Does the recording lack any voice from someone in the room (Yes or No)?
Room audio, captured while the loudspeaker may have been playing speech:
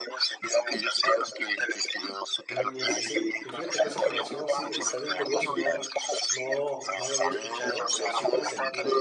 No